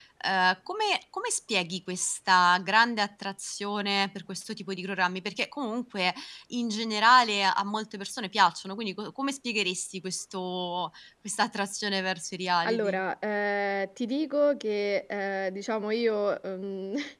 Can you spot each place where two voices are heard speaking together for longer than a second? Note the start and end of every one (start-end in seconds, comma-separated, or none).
none